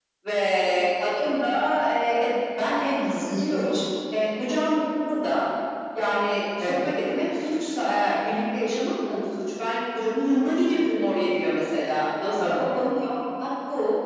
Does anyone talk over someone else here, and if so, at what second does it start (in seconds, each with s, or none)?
2.5 s